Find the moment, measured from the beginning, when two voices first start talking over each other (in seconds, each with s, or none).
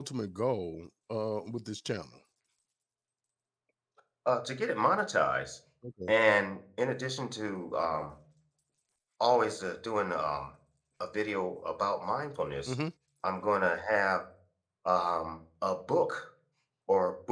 none